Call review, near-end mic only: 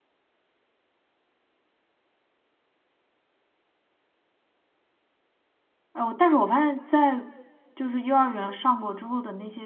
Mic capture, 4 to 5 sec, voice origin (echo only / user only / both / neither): neither